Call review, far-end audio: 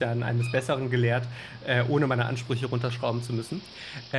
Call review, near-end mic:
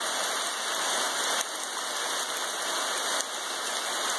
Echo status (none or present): none